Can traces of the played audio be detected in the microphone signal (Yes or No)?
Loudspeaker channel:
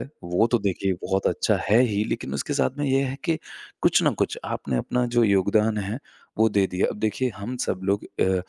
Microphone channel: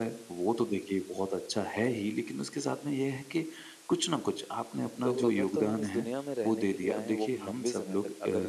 Yes